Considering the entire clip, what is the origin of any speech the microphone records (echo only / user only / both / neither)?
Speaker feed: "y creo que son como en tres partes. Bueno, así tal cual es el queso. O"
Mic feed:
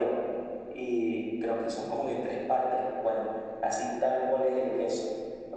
echo only